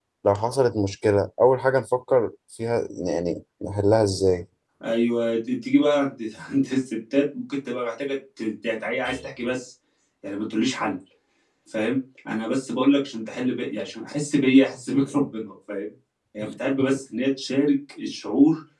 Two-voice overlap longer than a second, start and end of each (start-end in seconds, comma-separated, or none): none